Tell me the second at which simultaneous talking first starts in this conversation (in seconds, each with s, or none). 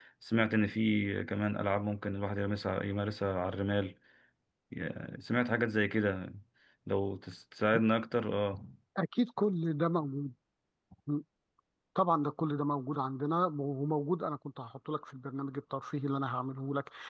none